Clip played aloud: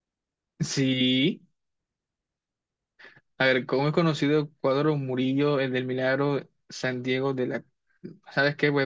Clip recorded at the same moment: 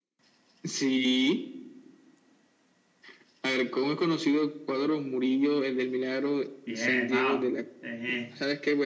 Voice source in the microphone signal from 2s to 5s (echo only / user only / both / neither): echo only